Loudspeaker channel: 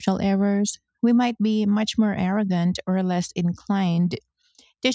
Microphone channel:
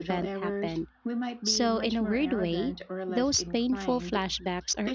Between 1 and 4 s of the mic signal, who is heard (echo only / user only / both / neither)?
both